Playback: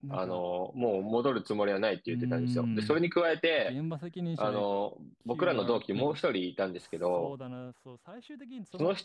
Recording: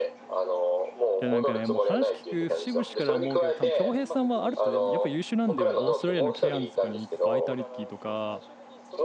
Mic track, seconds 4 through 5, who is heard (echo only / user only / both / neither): both